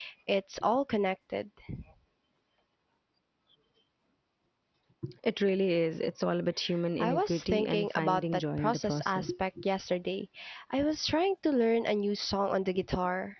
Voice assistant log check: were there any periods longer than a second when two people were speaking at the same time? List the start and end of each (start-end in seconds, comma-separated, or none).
7.0-9.3